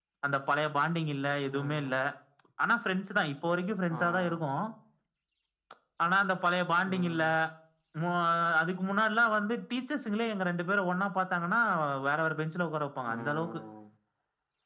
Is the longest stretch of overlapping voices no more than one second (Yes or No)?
Yes